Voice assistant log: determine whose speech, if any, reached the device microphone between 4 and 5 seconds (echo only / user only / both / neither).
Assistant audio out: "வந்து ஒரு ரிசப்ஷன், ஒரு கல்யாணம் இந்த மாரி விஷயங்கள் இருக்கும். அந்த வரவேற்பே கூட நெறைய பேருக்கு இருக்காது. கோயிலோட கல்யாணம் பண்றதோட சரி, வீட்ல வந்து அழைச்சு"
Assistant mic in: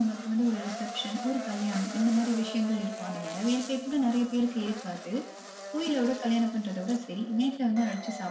echo only